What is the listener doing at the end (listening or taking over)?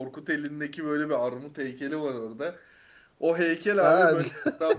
listening